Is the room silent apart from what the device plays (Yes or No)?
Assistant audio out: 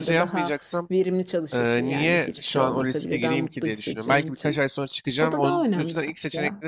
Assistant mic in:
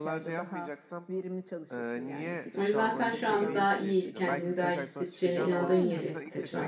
No